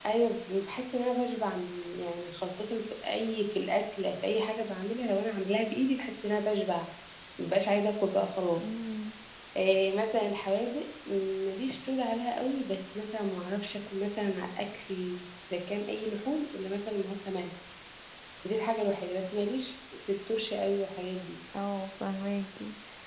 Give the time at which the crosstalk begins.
none

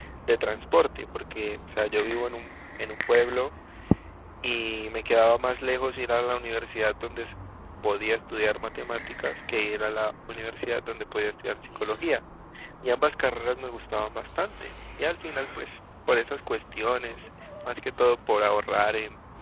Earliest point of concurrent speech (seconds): none

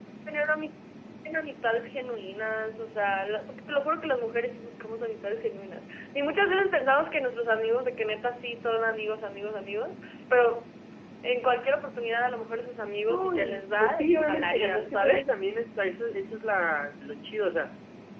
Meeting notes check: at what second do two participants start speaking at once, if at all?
13.1 s

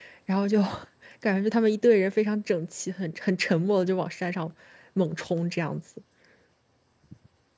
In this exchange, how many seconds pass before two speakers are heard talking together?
none

